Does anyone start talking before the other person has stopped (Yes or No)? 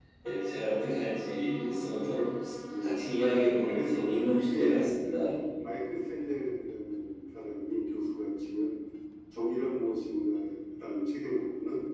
Yes